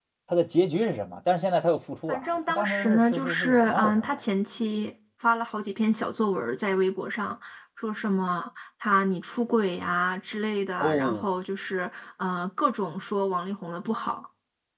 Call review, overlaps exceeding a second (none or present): present